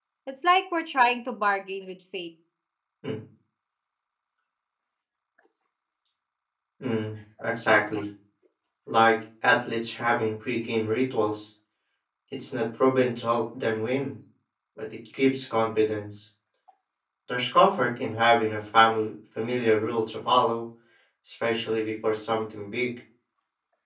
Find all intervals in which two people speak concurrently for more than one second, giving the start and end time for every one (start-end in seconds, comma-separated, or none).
none